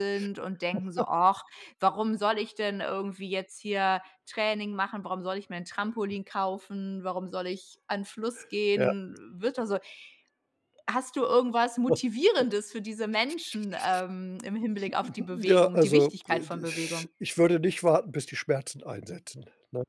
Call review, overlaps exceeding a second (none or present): present